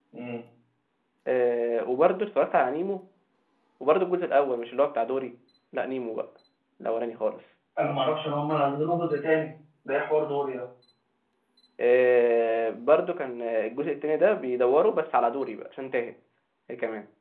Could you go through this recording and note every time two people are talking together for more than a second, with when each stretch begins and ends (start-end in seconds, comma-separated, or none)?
none